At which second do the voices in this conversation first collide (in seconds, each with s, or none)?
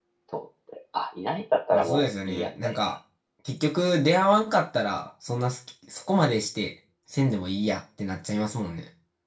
1.7 s